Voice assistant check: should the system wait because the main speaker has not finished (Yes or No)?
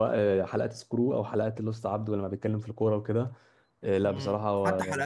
No